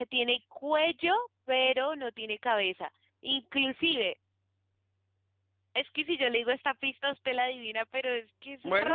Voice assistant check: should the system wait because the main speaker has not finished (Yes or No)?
No